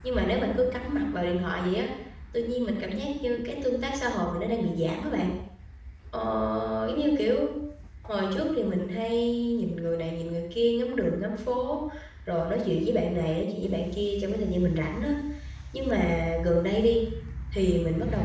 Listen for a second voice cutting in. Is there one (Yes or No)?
No